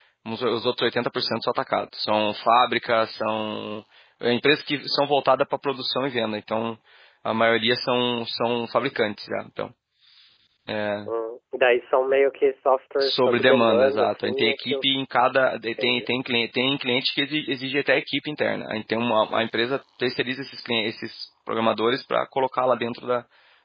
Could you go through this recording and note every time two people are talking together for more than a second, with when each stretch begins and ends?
13.0-14.8

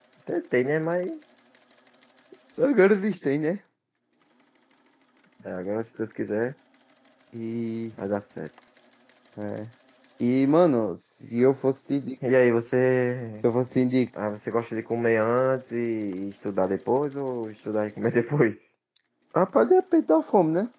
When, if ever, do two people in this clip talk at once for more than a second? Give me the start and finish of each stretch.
none

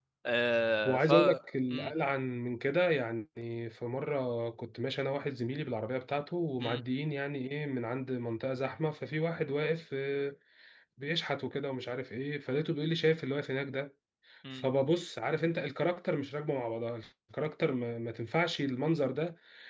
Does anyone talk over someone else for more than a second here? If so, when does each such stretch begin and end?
none

